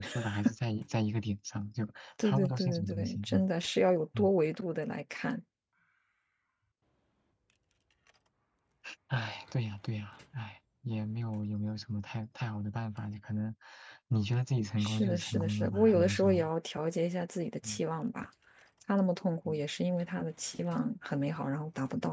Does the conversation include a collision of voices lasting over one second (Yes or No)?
Yes